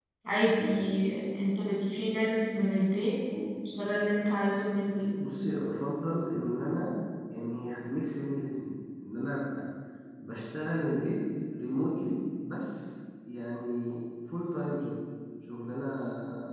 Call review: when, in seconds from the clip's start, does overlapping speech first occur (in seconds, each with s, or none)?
none